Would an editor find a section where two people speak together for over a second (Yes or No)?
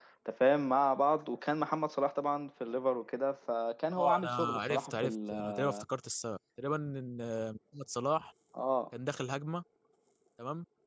Yes